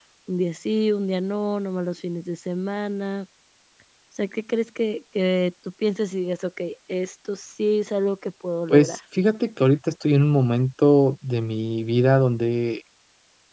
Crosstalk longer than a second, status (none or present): none